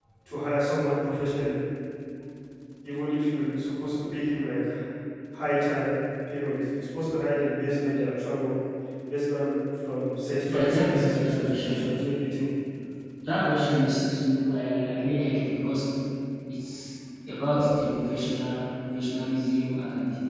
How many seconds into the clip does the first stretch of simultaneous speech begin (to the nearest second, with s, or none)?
10 s